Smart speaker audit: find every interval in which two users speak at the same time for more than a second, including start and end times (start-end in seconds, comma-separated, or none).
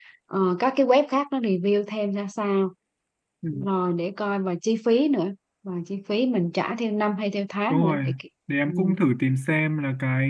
none